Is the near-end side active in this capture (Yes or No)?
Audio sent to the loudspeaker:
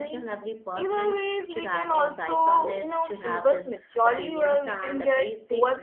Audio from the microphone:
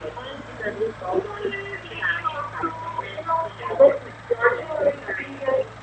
No